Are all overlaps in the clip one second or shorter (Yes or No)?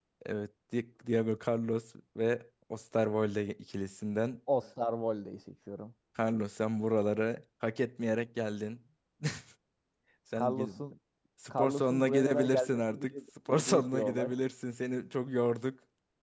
No